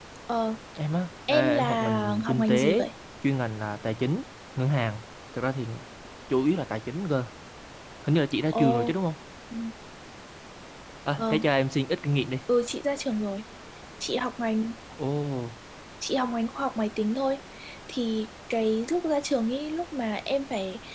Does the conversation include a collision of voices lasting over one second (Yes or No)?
Yes